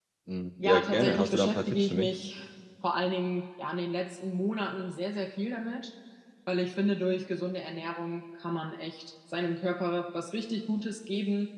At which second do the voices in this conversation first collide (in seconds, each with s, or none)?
0.6 s